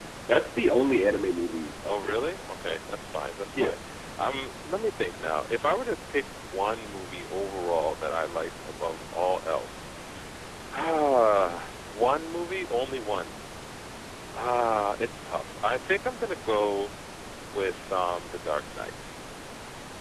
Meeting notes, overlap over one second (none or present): none